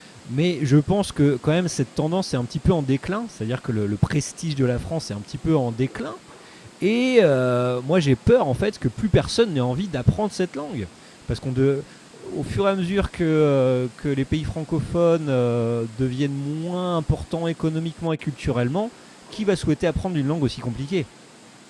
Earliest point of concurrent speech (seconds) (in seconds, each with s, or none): none